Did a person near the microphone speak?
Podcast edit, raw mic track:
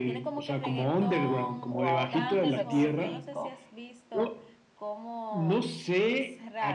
Yes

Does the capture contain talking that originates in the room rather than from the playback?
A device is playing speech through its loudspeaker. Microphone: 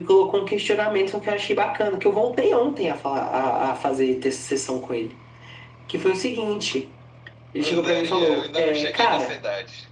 Yes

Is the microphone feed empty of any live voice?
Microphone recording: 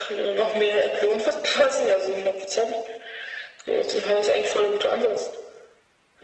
Yes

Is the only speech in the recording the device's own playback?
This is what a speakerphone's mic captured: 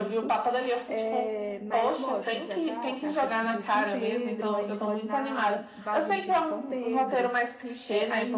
No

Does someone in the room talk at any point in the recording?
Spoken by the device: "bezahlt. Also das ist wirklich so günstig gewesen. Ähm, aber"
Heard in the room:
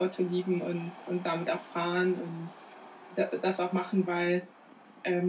Yes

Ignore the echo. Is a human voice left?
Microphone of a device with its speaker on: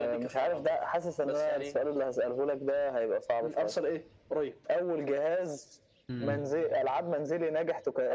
Yes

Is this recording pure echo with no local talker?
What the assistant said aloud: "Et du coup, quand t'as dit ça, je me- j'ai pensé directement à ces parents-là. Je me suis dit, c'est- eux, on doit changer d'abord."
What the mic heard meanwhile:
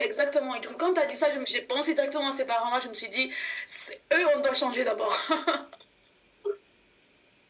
Yes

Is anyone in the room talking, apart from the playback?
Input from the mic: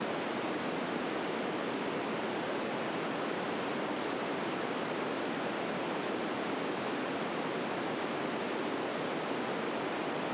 No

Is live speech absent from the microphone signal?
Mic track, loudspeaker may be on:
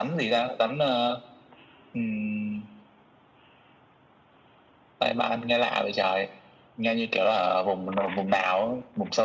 Yes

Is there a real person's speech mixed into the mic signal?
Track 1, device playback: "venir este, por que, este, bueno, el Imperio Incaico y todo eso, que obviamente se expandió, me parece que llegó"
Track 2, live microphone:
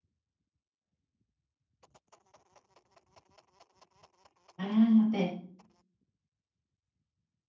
Yes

